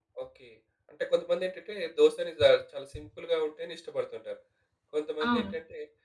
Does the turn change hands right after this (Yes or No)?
No